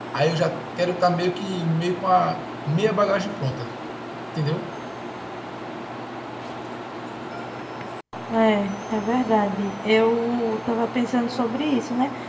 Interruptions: none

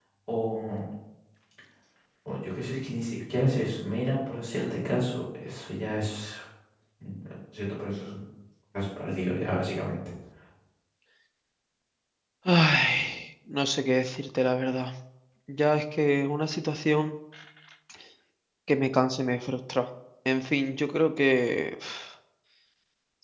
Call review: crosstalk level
none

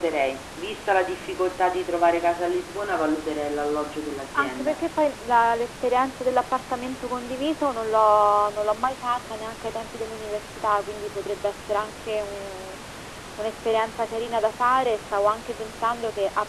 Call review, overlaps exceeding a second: none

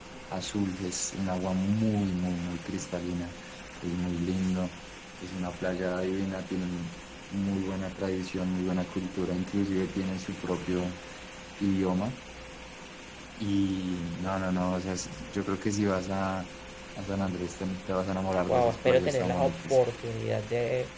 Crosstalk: present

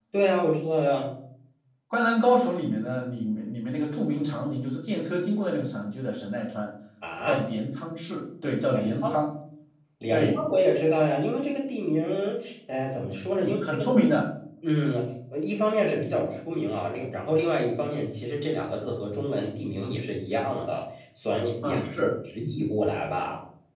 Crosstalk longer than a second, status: none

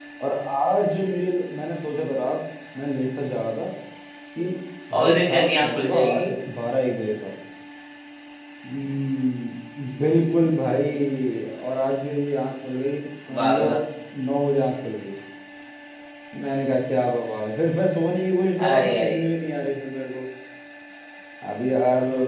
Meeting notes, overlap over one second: present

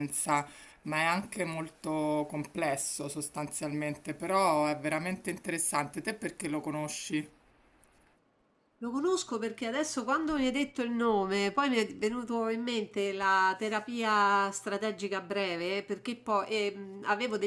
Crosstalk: none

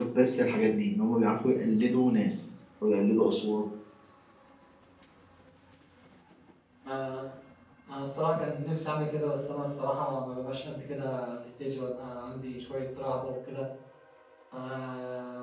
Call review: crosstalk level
none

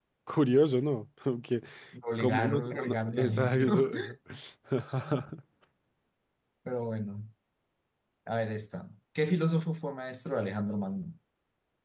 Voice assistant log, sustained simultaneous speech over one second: present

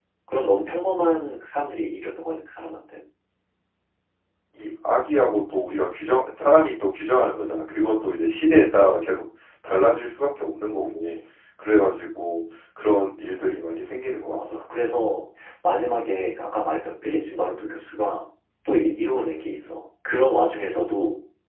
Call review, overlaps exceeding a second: none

